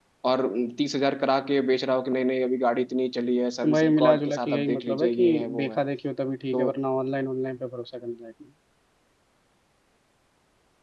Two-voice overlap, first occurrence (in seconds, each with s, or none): 3.6 s